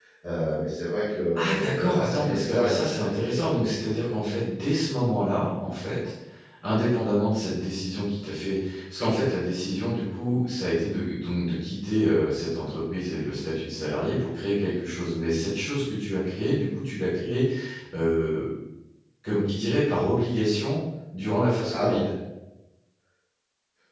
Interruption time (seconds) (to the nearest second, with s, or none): 1 s